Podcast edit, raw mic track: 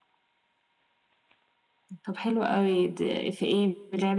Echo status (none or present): present